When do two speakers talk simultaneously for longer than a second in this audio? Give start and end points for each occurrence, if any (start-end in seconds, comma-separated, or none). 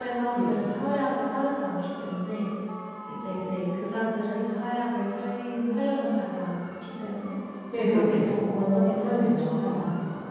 7.8-9.8